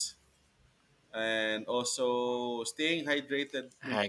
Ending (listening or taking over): listening